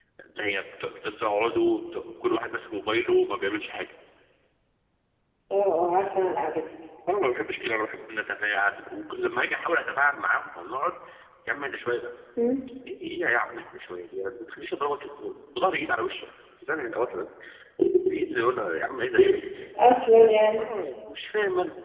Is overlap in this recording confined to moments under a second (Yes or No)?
Yes